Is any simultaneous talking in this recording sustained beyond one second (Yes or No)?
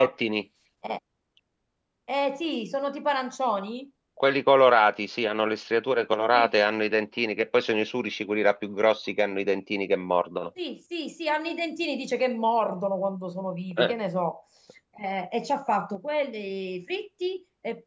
No